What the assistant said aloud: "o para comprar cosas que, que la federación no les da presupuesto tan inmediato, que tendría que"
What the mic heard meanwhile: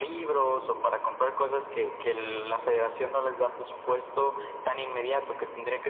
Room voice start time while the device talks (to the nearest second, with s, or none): none